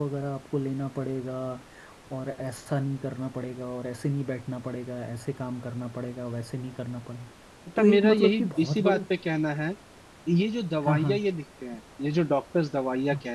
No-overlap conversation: No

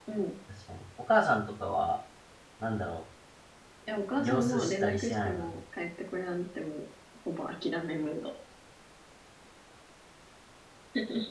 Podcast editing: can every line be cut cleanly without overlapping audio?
No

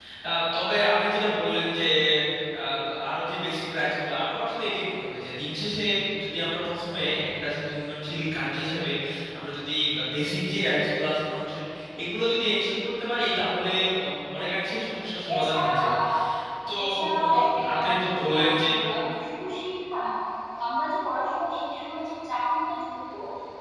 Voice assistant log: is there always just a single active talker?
No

